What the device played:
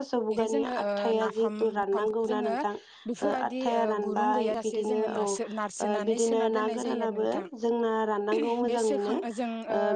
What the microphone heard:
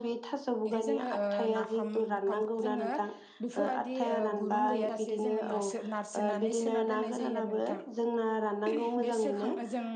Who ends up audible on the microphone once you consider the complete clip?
echo only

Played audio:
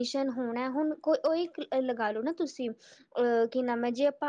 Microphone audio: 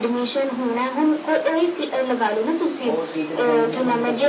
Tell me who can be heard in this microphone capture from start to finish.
both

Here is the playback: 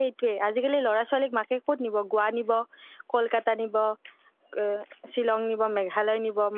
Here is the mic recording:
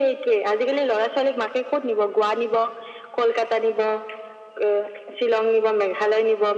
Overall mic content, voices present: echo only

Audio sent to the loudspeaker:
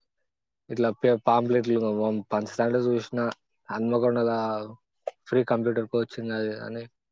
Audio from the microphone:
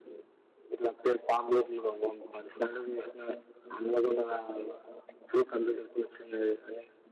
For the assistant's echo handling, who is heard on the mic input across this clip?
echo only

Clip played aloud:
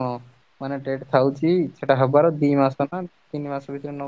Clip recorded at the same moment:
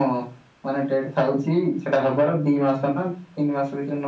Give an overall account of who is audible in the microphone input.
echo only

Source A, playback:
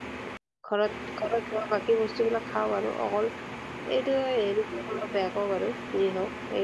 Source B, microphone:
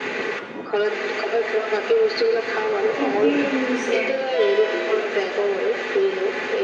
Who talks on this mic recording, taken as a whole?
both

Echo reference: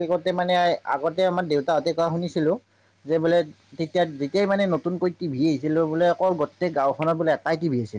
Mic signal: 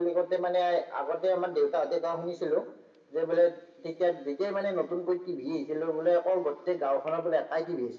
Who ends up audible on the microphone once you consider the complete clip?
echo only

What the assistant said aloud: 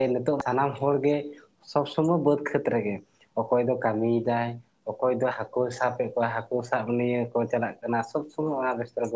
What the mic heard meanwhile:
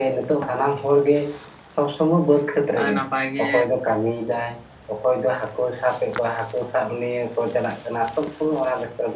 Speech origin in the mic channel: both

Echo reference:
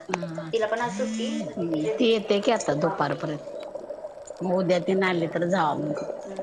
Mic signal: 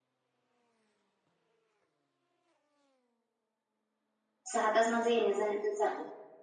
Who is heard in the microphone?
user only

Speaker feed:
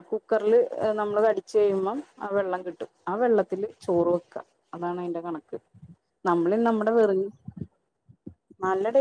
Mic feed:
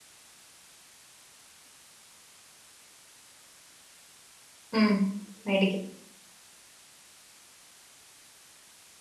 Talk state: user only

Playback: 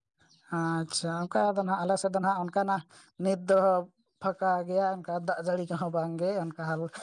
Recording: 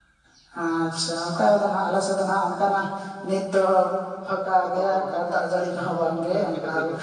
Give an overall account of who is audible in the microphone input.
both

